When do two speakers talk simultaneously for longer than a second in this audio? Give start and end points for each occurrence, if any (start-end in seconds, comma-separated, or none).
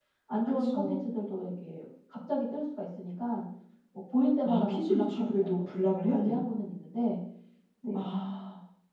4.4-6.4